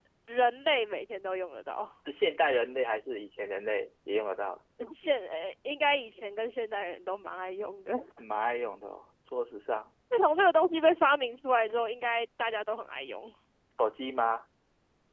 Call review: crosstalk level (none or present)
none